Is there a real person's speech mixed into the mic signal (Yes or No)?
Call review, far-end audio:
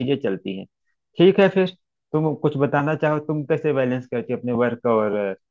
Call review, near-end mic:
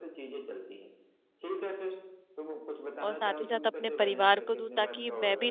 Yes